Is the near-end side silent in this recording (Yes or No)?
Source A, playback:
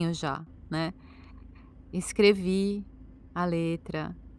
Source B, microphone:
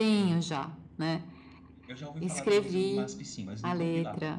No